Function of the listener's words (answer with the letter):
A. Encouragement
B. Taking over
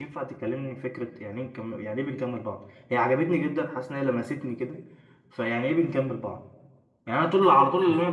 A